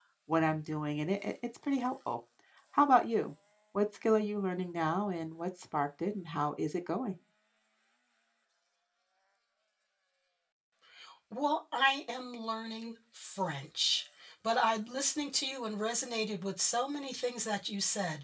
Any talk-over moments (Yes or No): No